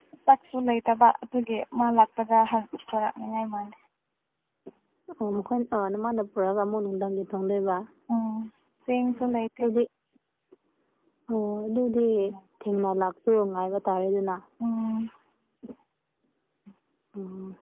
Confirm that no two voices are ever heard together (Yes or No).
Yes